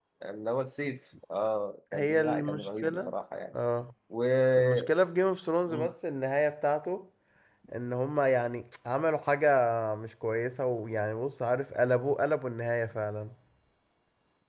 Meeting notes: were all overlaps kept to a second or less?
No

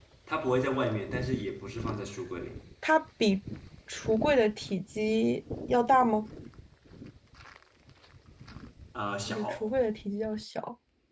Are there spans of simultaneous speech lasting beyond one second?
No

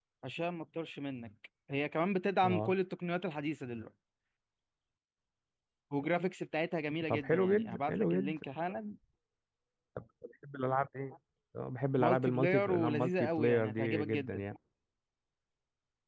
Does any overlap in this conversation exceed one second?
Yes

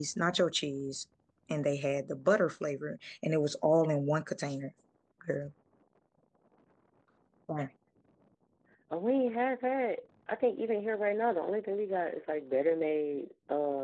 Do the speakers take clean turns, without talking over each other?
Yes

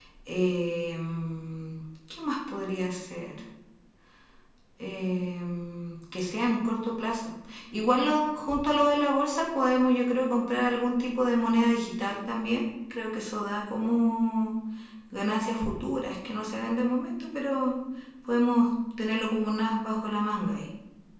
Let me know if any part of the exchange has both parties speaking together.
No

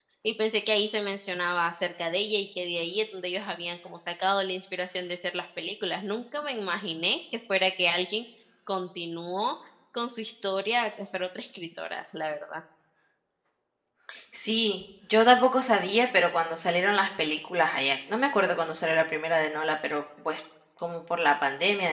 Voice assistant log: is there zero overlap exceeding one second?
Yes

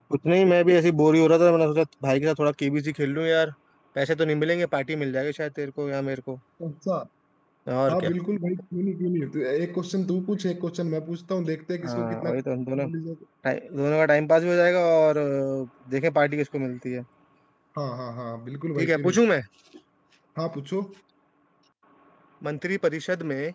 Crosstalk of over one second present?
No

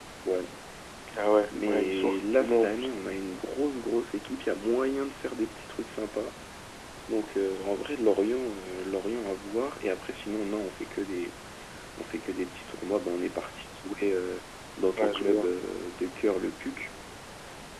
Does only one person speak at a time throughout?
No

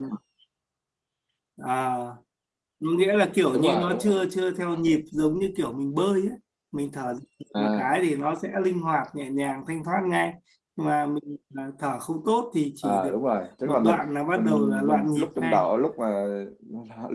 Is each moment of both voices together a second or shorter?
No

